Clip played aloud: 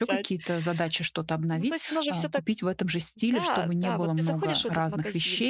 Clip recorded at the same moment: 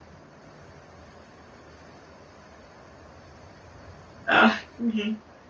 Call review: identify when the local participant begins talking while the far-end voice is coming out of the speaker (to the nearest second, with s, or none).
4 s